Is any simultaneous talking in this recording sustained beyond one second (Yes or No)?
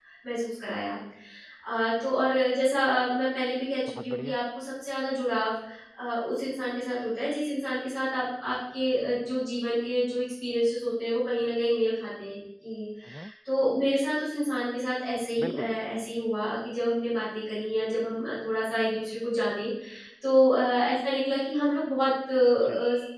No